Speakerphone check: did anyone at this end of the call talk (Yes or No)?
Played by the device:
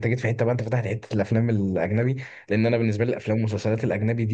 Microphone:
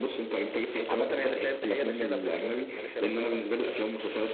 Yes